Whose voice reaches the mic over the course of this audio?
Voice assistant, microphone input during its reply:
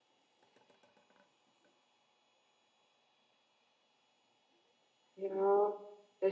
user only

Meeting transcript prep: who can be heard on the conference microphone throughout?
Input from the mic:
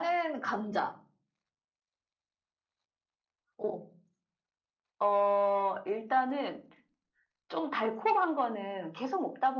echo only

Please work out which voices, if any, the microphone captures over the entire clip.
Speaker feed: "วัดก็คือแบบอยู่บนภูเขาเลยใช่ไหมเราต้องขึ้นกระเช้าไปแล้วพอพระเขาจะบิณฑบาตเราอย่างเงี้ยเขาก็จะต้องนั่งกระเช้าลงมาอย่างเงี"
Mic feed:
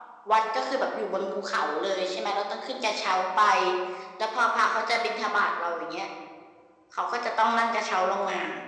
echo only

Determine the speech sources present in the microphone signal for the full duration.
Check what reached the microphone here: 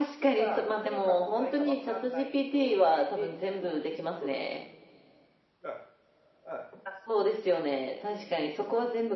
echo only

